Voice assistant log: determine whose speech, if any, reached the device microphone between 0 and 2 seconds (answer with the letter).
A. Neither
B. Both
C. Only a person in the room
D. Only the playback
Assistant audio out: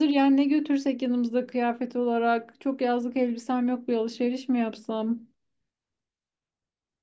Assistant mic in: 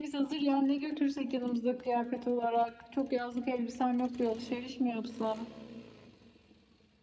D